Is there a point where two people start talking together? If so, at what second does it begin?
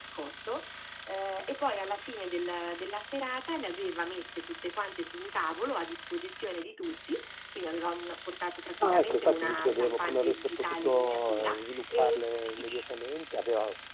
9 s

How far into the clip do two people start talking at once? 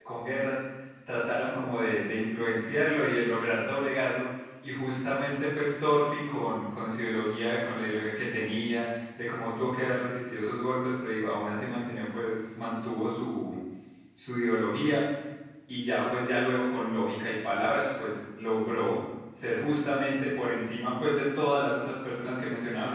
none

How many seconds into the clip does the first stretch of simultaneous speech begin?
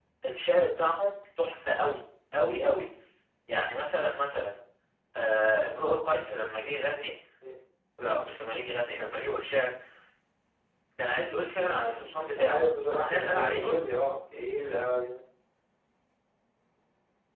12 s

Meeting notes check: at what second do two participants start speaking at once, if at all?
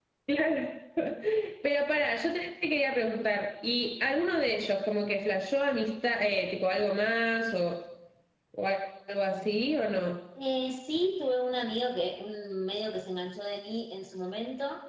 none

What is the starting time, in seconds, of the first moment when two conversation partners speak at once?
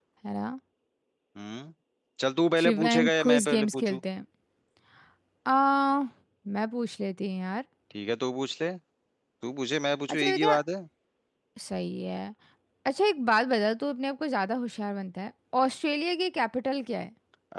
3 s

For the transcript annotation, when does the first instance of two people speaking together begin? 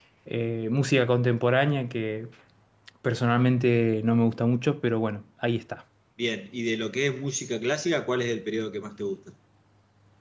none

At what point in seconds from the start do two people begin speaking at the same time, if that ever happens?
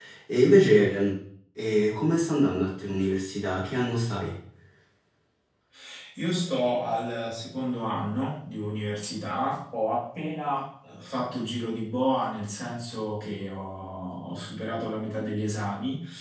none

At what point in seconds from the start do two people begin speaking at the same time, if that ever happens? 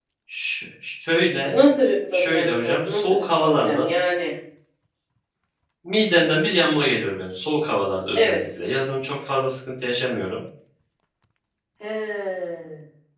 2 s

